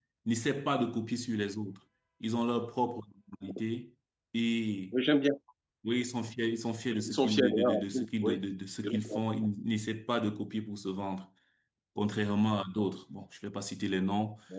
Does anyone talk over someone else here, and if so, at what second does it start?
7.1 s

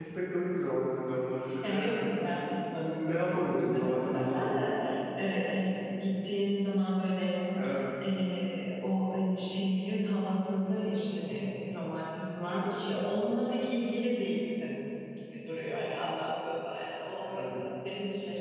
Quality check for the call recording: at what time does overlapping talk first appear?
1.6 s

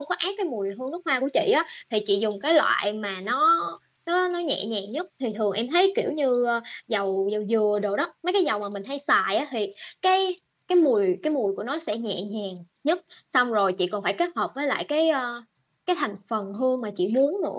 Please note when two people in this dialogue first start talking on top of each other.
none

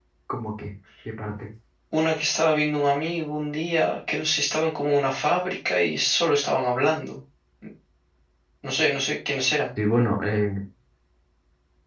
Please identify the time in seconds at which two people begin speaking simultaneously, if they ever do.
none

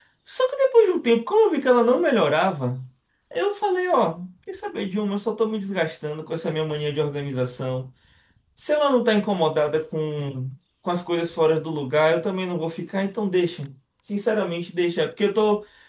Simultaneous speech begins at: none

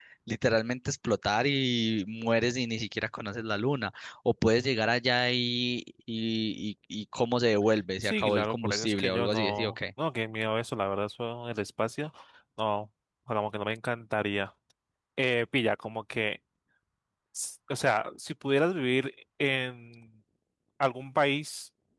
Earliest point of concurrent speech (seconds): 8.0 s

